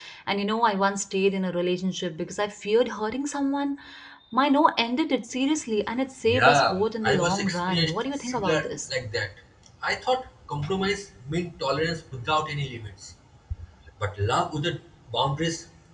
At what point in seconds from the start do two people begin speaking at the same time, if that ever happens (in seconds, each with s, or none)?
6.3 s